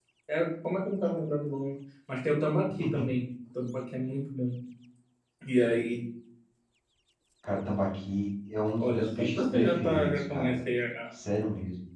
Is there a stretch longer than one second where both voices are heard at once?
Yes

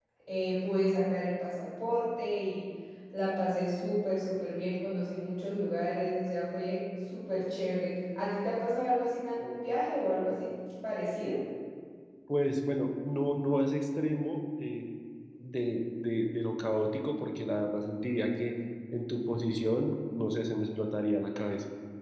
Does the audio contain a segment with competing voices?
No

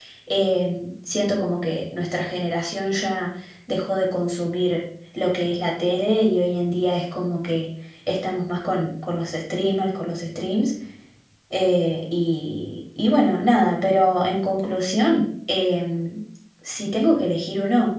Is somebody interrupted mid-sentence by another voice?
No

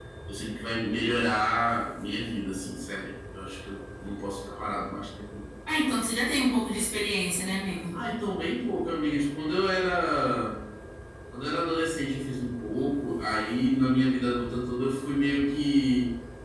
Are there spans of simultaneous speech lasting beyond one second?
No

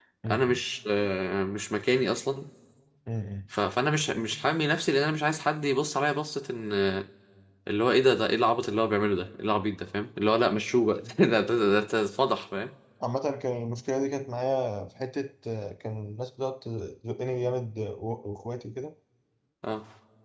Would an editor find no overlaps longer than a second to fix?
Yes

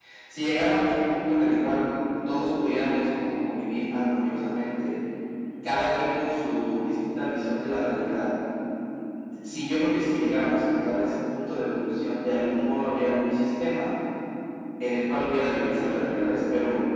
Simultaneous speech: No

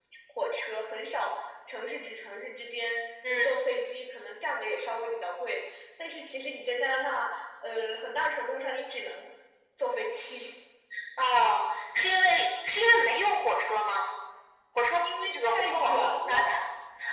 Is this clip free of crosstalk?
No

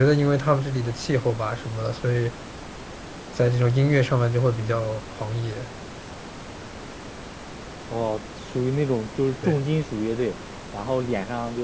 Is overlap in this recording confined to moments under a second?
Yes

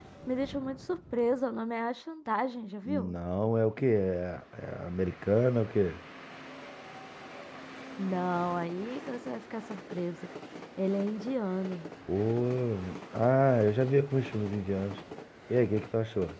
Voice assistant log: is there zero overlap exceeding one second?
Yes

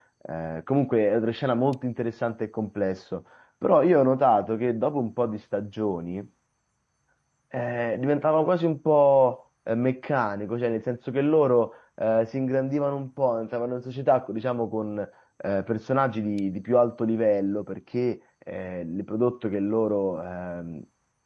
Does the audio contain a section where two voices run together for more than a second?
No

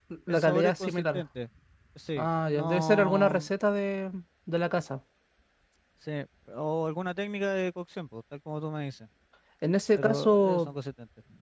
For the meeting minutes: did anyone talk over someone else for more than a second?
Yes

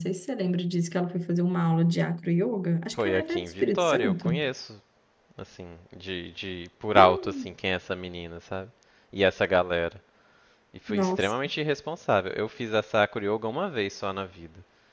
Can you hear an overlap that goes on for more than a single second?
Yes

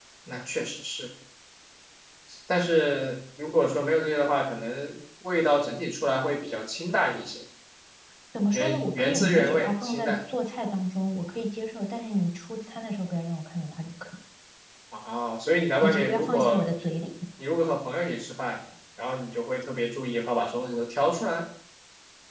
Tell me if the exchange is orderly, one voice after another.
No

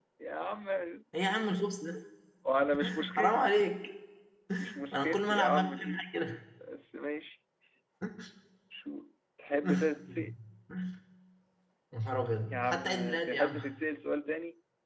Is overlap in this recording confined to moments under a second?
No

